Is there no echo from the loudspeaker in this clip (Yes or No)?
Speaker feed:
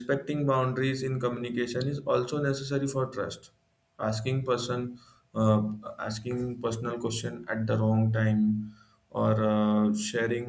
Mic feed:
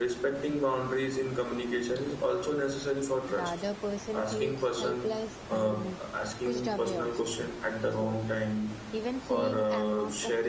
No